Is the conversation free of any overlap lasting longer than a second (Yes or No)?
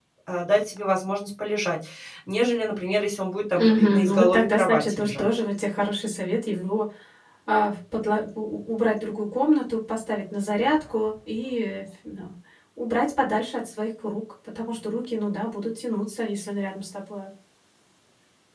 No